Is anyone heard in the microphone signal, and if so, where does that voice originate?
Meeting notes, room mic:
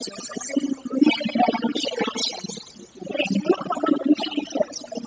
echo only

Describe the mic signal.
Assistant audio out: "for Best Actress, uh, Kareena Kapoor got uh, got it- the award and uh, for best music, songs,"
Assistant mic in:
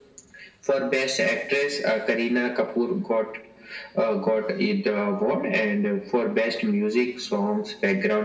echo only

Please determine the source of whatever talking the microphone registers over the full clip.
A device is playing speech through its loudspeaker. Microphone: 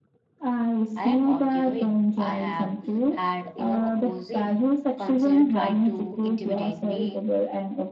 both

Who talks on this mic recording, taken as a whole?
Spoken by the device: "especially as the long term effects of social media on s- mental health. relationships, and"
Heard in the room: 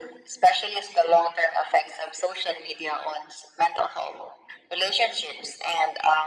echo only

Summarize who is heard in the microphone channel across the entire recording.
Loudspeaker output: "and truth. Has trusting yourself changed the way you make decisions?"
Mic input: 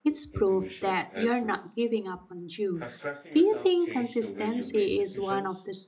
both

